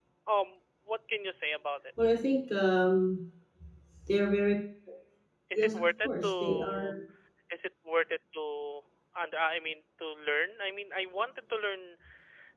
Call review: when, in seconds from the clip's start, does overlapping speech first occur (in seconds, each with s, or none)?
5.5 s